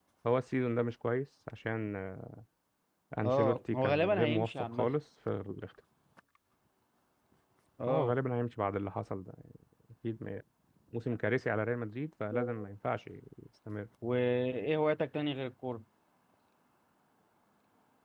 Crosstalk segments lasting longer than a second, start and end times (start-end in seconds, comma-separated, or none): 3.2-4.9